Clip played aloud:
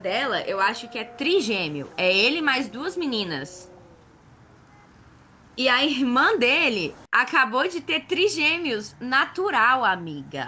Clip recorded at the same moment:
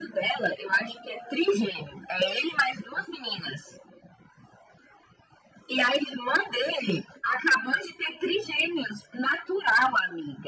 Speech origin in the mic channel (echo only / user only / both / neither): echo only